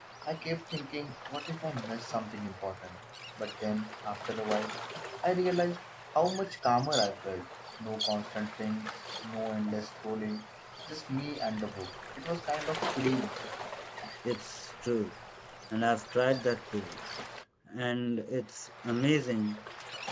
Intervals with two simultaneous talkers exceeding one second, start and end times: none

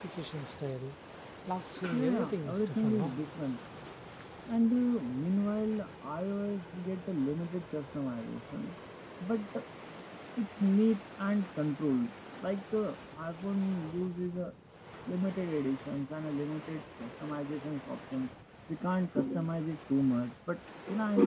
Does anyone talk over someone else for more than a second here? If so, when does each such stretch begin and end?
1.9-3.2

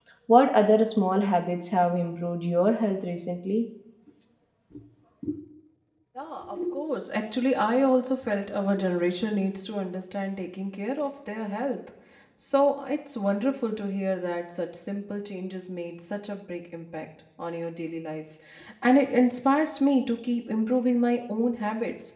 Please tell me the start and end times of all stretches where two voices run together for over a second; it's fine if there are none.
none

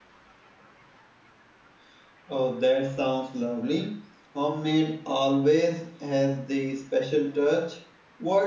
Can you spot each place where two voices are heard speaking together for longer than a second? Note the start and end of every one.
none

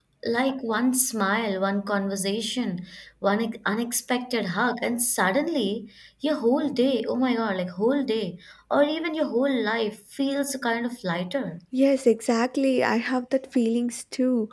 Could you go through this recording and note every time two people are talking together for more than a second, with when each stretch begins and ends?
none

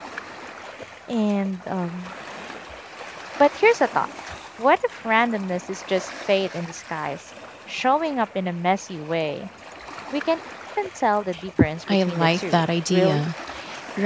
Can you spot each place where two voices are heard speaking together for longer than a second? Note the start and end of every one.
11.9-13.3

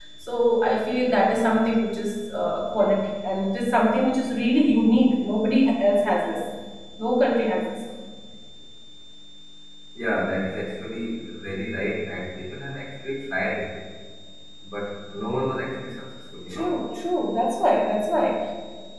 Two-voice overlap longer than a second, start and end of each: none

